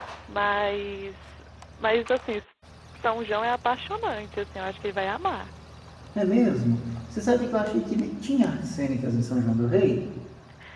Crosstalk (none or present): none